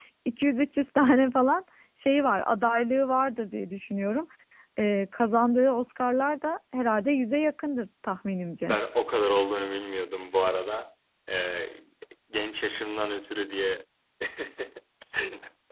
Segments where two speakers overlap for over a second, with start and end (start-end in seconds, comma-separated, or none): none